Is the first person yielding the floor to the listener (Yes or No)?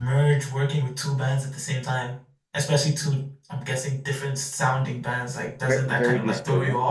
Yes